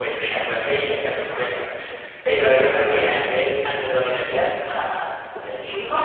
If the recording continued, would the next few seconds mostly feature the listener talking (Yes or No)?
Yes